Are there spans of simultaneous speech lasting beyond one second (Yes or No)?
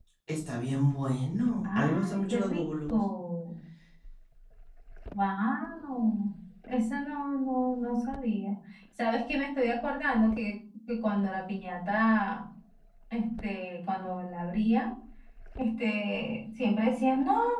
Yes